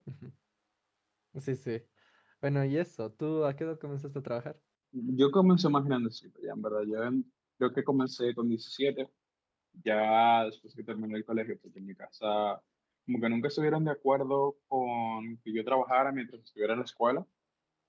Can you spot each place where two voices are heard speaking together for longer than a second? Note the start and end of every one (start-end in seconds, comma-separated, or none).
none